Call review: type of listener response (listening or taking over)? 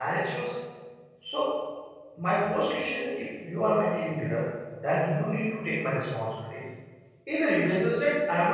listening